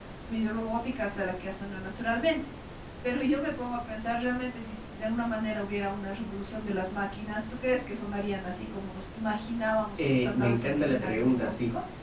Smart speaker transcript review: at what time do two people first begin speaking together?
10 s

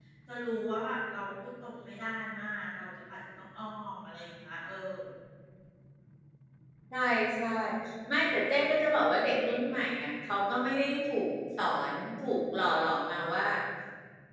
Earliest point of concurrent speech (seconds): none

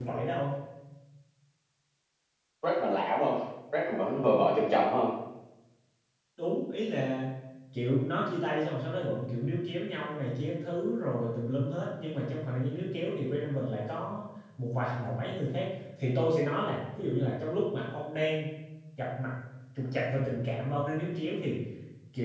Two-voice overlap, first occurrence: none

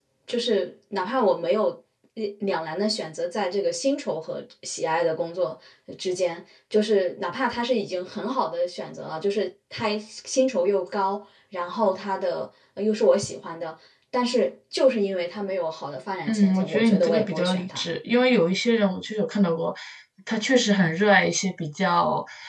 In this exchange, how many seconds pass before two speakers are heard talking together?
16 s

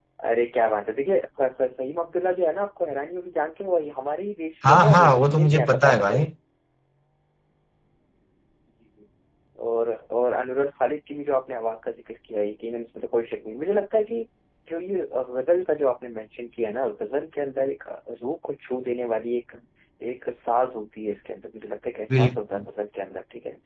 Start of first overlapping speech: 5 s

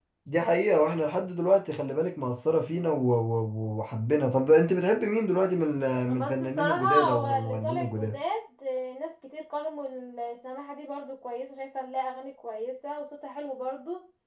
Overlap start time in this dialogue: 6 s

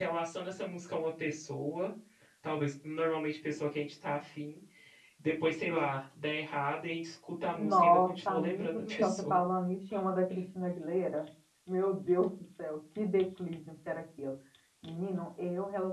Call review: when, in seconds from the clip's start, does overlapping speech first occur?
8 s

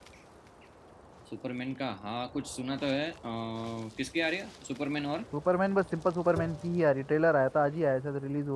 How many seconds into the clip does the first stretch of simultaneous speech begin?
none

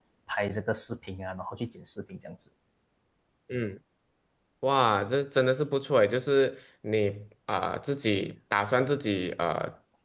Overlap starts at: none

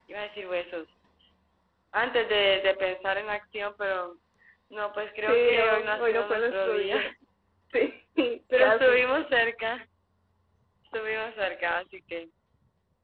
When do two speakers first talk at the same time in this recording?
5 s

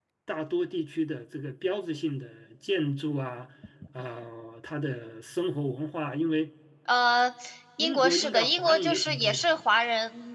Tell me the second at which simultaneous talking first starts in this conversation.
8 s

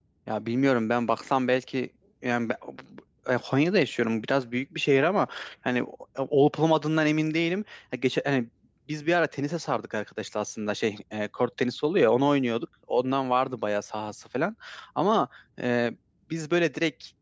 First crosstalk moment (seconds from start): none

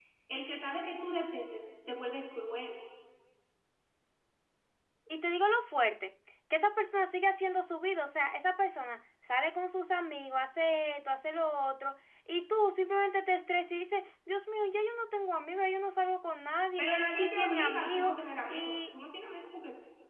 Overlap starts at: 17 s

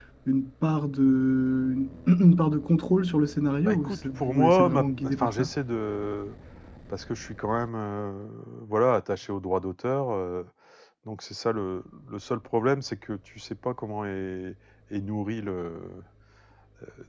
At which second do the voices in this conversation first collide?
4 s

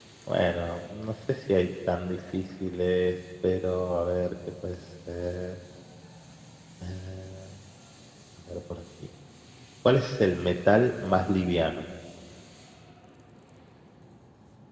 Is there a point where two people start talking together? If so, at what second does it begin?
none

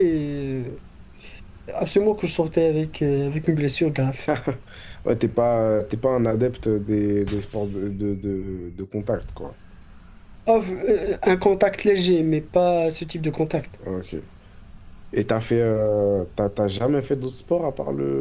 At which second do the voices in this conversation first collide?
none

